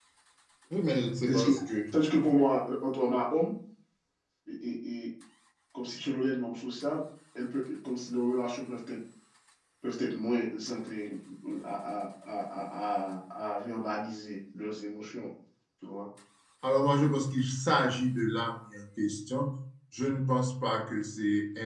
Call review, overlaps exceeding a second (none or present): none